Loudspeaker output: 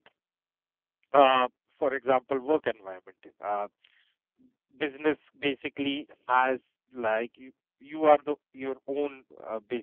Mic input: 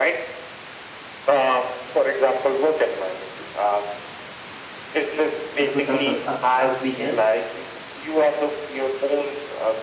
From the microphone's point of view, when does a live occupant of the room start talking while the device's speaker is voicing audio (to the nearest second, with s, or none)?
6 s